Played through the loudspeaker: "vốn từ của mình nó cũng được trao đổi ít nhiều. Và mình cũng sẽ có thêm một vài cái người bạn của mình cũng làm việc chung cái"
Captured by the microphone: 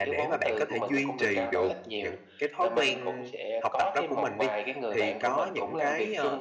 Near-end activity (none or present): present